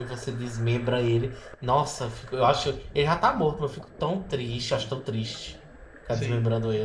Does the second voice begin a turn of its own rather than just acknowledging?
Yes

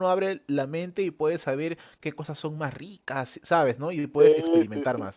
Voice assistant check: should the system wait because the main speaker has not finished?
No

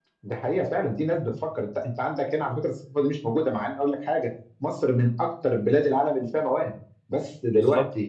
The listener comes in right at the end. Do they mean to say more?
No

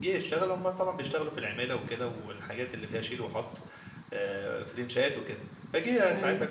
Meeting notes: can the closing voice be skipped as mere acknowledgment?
Yes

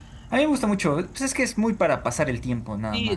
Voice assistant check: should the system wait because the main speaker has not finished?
No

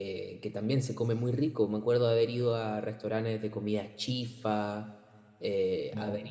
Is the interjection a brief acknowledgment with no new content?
Yes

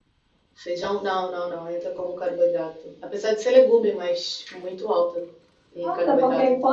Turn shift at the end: Yes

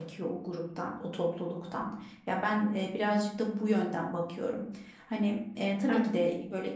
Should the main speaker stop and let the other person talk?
No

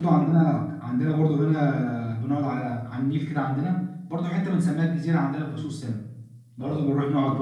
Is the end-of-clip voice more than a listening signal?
No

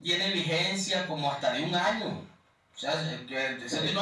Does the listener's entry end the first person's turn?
No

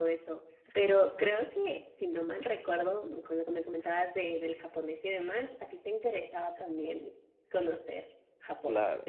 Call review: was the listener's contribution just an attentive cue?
No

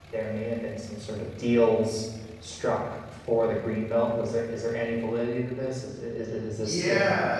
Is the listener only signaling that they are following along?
No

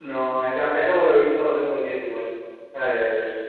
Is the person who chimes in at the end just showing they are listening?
Yes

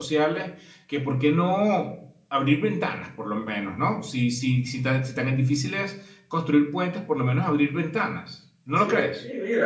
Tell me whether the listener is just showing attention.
No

